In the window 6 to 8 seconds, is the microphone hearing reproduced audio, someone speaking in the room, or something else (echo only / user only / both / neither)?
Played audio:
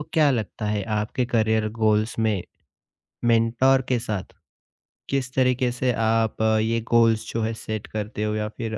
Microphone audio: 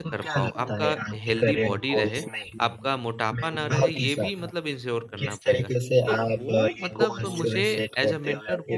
both